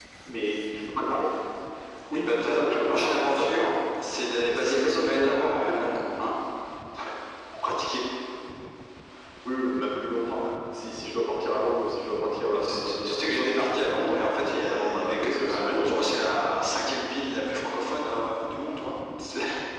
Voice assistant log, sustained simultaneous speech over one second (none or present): present